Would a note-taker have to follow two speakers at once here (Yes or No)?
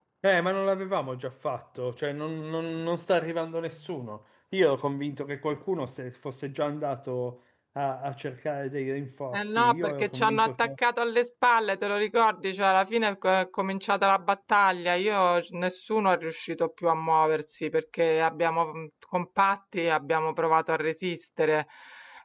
Yes